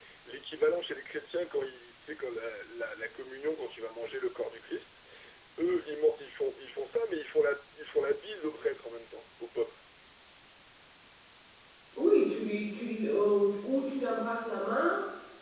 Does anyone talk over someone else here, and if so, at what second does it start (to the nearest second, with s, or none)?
none